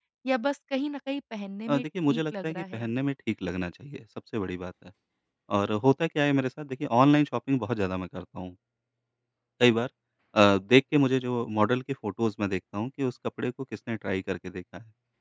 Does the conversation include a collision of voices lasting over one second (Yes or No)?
Yes